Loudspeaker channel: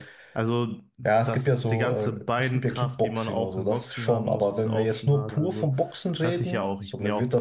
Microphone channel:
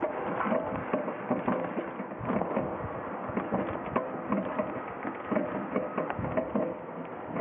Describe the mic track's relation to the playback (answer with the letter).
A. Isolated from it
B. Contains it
A